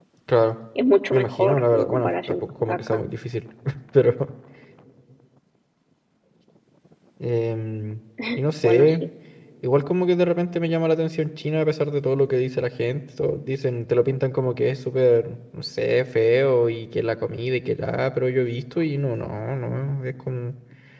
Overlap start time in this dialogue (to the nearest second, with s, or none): 1 s